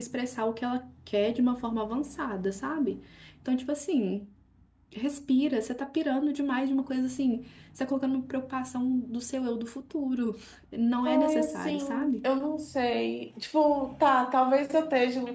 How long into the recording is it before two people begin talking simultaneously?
11 s

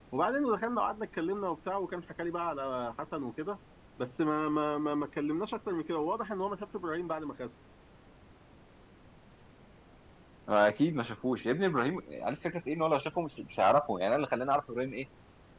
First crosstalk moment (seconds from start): none

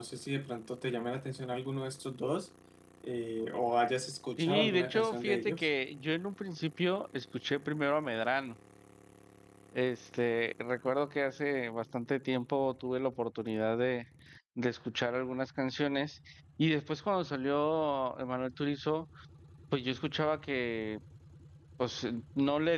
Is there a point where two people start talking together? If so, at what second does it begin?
4 s

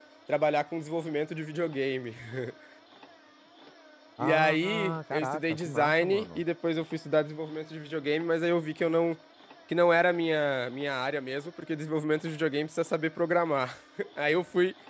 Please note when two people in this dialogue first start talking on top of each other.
4 s

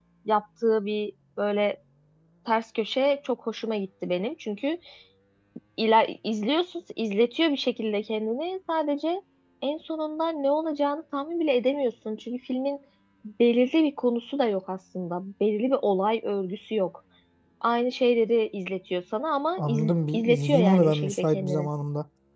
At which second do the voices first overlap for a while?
20 s

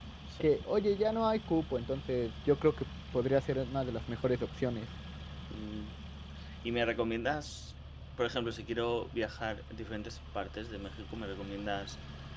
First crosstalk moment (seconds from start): none

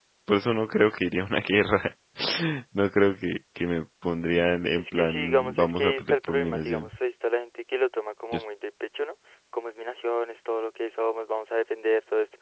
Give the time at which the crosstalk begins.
5 s

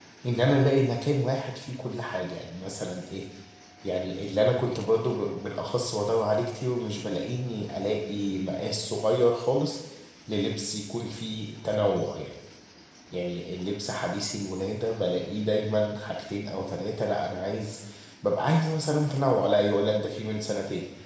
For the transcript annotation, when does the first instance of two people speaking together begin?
none

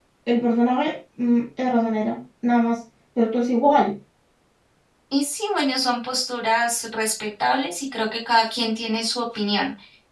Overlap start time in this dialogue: none

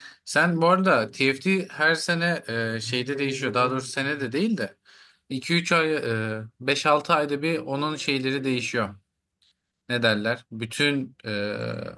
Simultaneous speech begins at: none

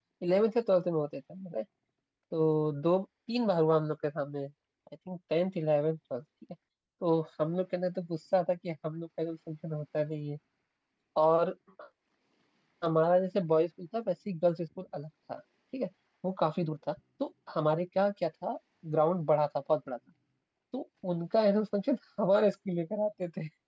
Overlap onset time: none

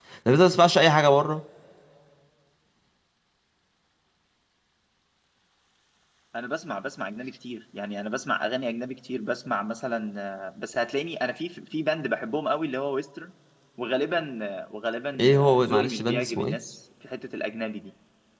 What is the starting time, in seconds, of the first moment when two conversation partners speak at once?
15 s

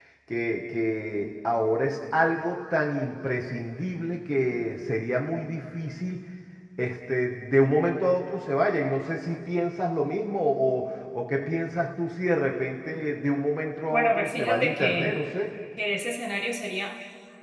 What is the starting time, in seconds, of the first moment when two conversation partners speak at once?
14 s

